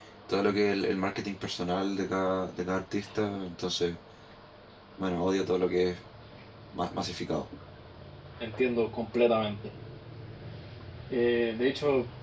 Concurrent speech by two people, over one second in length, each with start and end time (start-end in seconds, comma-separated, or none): none